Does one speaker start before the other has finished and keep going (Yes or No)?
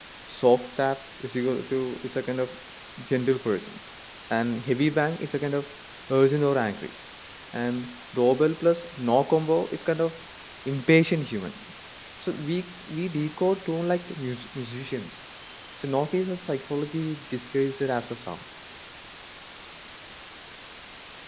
No